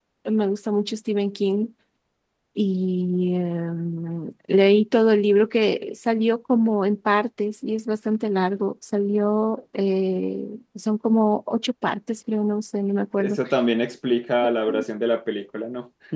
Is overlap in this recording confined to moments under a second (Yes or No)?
Yes